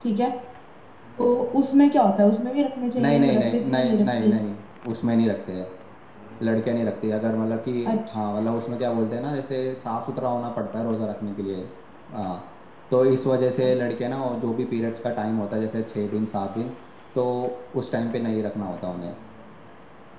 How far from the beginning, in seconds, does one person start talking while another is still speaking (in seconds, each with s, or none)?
3.0 s